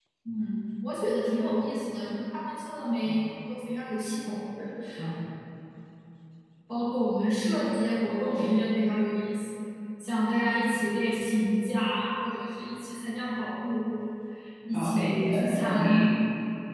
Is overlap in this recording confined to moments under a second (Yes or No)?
No